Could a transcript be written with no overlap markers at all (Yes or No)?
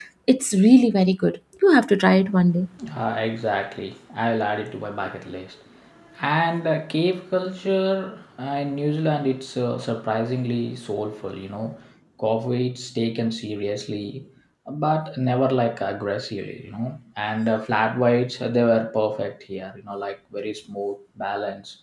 Yes